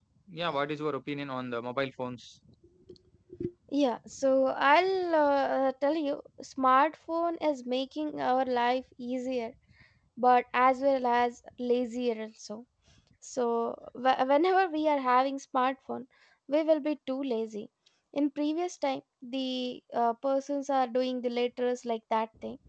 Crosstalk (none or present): none